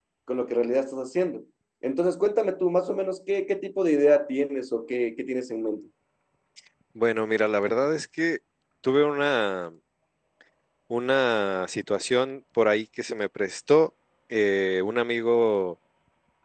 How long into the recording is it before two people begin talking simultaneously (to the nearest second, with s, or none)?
none